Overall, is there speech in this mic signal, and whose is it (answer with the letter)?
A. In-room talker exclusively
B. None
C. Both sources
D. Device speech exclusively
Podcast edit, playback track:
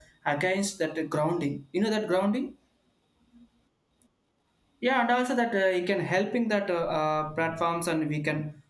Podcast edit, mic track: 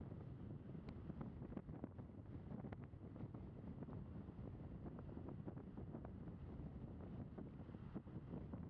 B